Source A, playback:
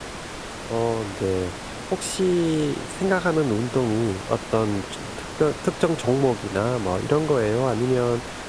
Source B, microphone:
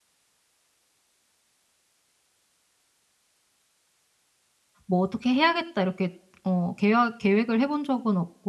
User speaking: Yes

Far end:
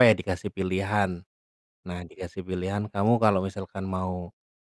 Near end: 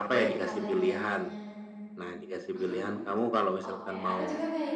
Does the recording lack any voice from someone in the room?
No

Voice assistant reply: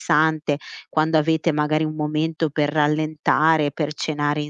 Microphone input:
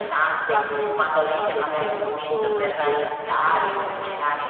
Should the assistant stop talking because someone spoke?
Yes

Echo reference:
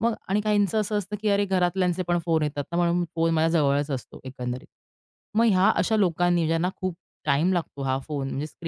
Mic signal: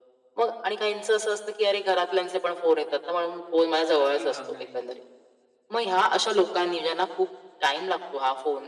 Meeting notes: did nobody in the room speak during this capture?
No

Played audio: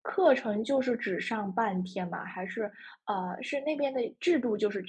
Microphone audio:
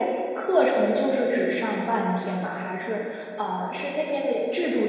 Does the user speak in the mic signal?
No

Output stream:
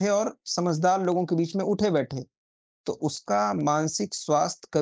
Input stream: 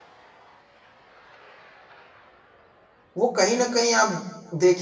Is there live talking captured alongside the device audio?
Yes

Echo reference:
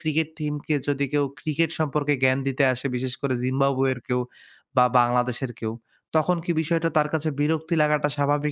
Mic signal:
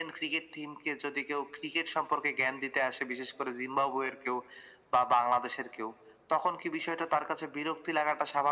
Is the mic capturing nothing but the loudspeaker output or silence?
Yes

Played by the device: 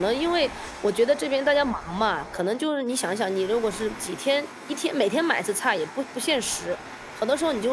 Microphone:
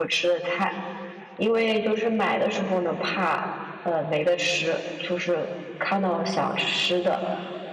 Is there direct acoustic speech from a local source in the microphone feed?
Yes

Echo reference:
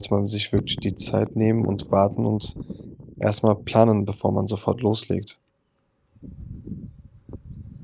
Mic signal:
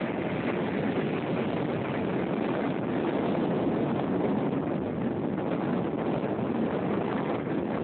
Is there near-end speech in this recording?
No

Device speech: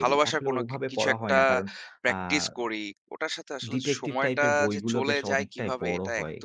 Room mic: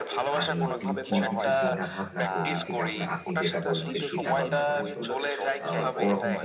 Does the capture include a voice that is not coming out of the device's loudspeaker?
Yes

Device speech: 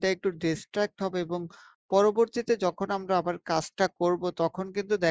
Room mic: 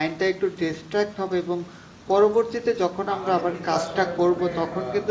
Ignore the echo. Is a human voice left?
Yes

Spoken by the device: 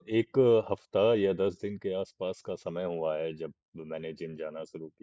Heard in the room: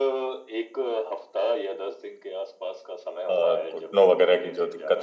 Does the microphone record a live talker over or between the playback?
Yes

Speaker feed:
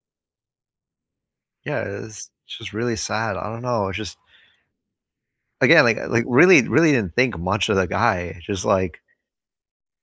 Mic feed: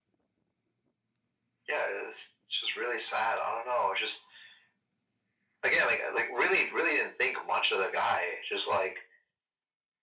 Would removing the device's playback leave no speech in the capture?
Yes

